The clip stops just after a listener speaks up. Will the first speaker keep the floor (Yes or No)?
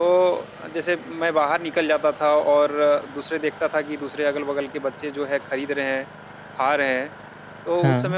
Yes